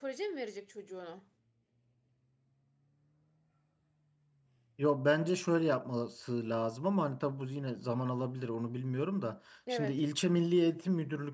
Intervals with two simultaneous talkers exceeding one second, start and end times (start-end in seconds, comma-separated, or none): none